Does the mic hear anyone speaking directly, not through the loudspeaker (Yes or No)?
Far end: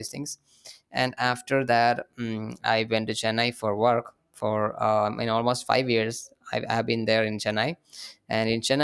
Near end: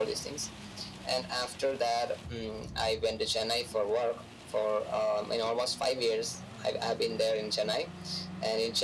No